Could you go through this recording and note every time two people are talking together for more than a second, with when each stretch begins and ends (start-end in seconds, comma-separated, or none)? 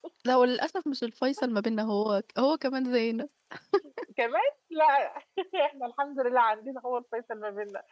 none